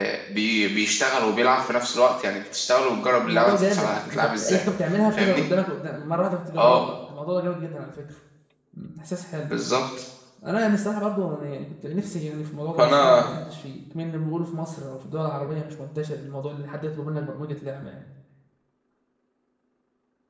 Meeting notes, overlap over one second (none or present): present